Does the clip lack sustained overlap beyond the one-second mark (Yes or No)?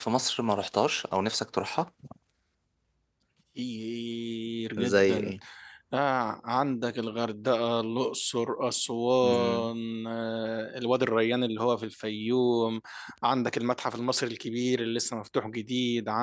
Yes